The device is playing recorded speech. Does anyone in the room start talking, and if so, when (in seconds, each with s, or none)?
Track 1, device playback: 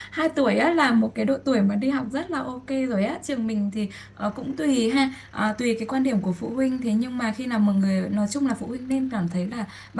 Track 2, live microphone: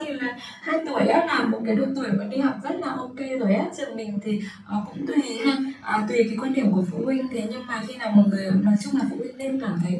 none